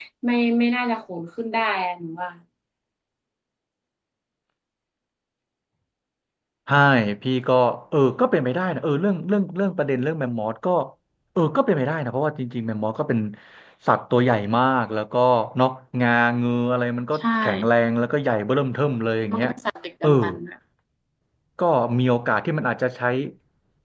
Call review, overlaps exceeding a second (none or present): none